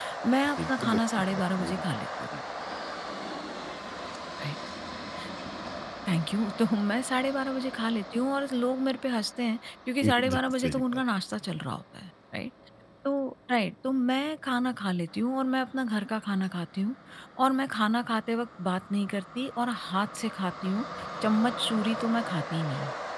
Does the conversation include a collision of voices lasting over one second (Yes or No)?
Yes